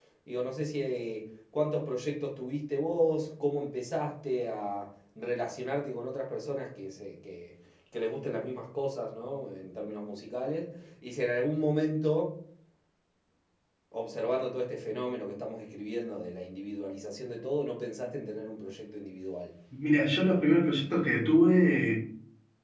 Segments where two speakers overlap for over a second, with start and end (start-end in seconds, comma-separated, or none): none